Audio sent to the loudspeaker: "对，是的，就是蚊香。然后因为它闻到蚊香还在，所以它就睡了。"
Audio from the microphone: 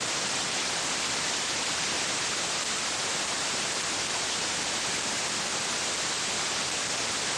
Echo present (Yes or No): No